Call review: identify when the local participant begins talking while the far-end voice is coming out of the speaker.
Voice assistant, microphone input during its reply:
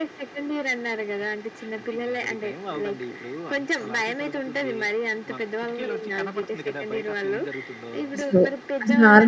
8.2 s

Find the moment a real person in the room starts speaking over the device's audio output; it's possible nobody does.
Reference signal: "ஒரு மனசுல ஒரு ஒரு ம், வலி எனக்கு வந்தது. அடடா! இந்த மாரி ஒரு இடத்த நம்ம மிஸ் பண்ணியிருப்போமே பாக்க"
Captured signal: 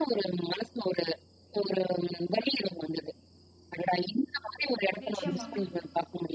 5.0 s

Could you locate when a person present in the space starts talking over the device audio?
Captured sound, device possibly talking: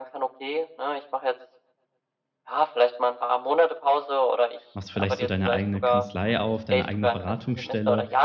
4.7 s

